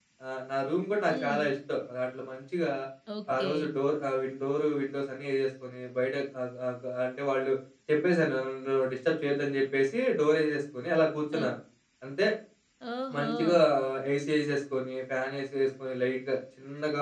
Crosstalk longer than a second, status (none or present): none